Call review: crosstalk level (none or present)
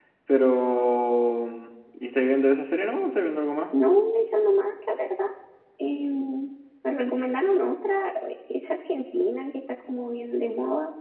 none